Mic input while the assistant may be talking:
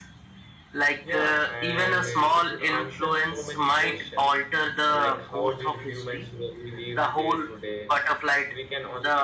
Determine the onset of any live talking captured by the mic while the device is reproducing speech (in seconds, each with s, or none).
1.0 s